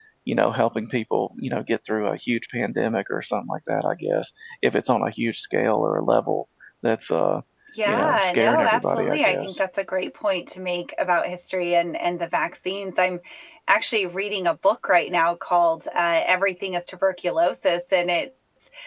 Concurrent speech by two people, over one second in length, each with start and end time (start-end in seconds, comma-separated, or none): 7.9-9.6